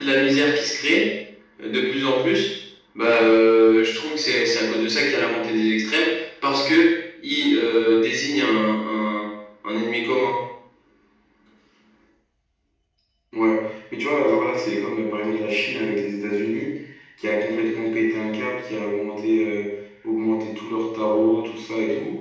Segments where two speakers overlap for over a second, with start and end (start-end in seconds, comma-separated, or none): none